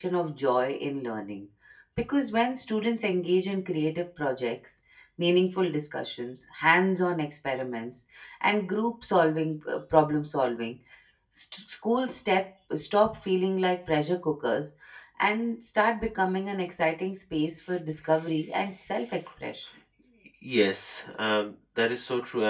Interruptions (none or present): none